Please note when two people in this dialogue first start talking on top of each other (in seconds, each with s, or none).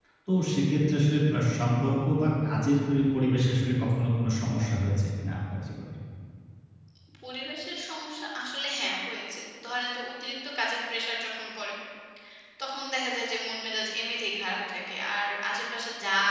none